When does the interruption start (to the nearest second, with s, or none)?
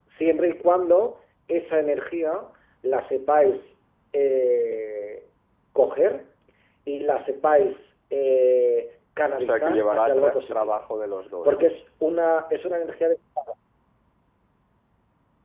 9 s